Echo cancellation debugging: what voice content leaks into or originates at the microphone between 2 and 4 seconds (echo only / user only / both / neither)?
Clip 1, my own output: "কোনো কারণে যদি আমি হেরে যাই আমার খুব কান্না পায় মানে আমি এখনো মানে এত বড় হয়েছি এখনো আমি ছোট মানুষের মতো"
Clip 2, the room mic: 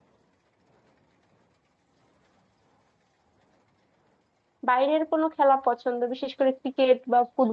neither